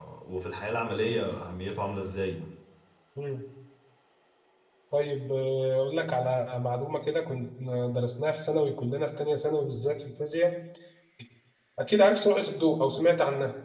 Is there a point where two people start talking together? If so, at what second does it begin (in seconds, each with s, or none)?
none